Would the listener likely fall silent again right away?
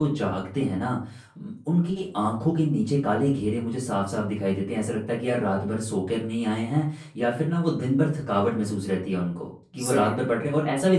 Yes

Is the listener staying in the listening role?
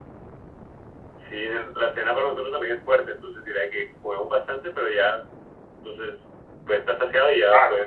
No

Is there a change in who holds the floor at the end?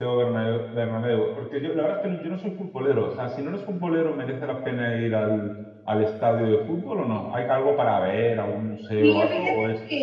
Yes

